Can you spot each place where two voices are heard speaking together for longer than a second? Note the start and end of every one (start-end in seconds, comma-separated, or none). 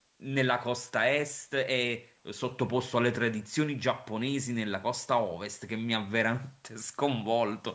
none